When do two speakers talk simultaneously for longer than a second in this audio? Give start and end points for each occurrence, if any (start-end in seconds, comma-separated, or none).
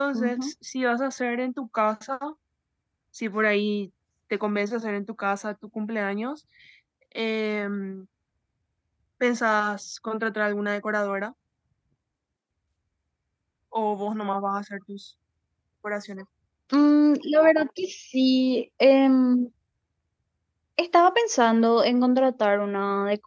none